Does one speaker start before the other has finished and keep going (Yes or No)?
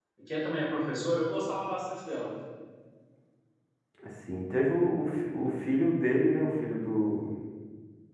No